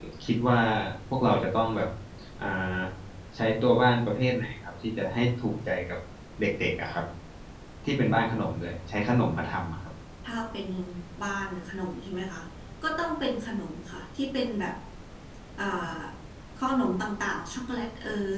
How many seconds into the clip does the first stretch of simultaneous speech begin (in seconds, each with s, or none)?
none